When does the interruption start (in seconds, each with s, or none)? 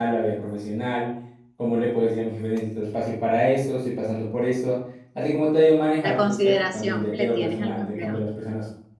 6.0 s